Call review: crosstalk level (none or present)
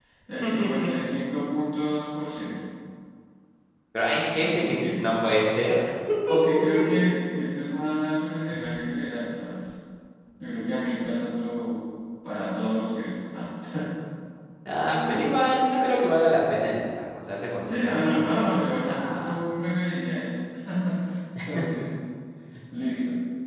present